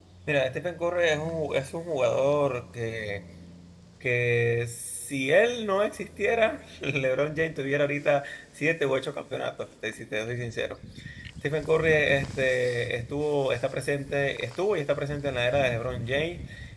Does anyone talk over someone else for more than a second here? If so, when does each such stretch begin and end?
none

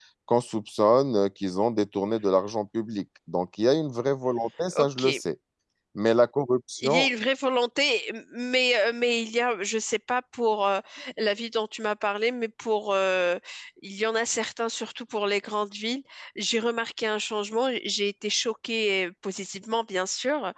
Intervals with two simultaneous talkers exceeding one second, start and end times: none

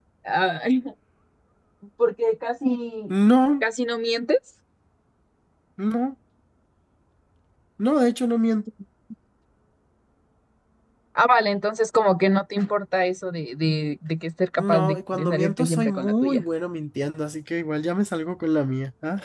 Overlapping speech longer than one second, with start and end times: 14.6-16.4

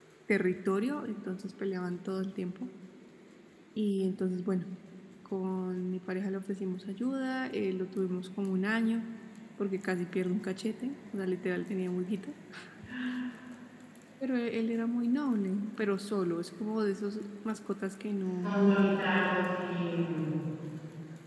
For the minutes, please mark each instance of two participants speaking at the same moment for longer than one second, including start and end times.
none

